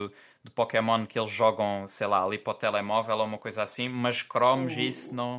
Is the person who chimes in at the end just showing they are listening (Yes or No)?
Yes